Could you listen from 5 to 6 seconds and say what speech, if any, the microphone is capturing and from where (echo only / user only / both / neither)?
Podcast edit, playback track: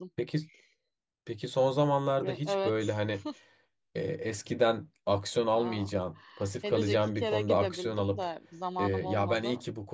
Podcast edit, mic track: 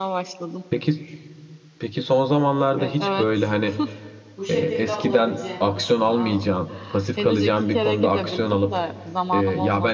both